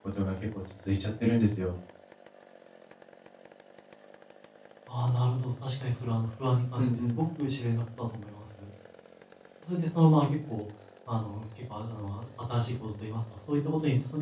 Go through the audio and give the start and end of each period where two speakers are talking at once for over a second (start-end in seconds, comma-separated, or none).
none